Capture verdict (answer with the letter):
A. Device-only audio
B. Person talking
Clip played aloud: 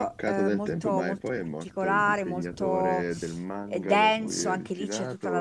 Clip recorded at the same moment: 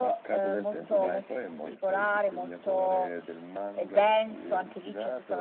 B